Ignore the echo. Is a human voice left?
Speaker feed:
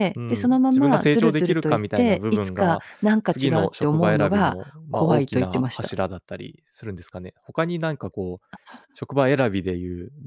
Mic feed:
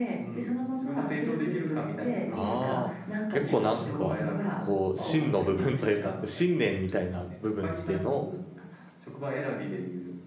Yes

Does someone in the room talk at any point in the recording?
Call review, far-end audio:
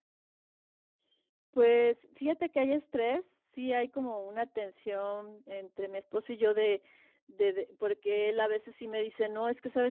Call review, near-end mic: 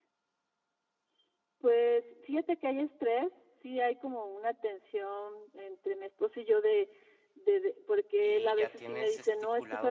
Yes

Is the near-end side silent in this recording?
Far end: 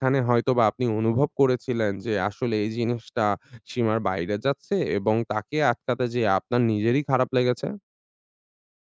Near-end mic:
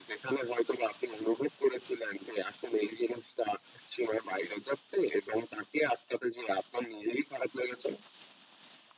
Yes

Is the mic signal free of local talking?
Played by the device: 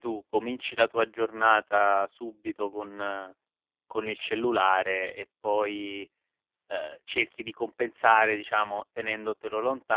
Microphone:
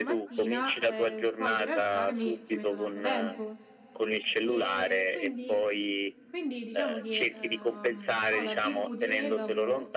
No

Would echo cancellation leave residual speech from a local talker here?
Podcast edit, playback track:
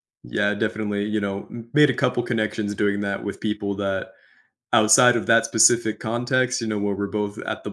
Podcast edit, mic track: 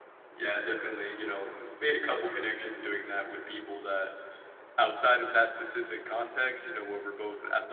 No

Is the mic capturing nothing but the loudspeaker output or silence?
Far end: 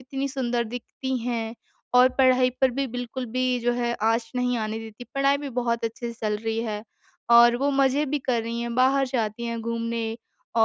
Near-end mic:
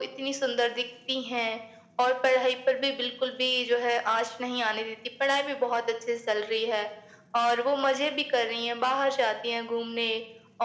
Yes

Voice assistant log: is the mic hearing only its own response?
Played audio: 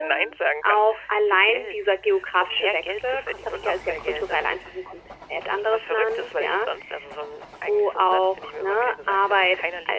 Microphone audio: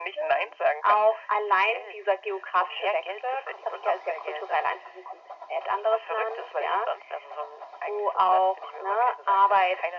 Yes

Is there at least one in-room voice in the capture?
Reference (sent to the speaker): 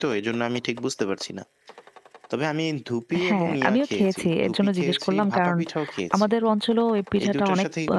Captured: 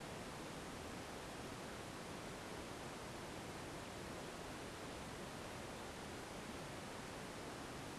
No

